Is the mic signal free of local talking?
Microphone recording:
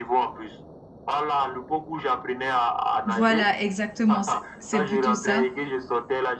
No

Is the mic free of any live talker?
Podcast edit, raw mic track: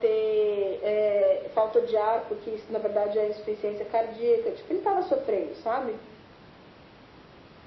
Yes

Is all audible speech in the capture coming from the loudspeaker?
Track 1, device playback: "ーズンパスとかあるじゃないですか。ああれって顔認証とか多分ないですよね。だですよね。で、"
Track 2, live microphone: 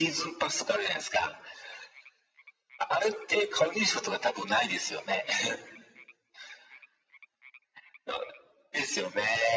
Yes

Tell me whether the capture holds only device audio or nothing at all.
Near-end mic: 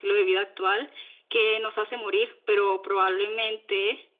Yes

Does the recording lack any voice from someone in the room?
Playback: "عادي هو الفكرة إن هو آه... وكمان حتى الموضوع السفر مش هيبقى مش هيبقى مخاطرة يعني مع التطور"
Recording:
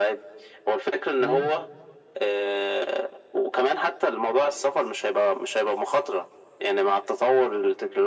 No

